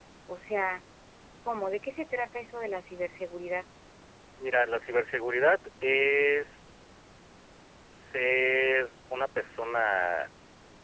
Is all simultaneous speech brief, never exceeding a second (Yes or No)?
Yes